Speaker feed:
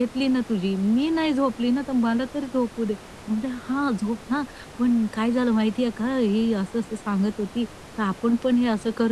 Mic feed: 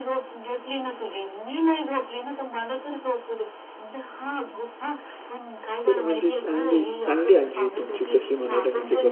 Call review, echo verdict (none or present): present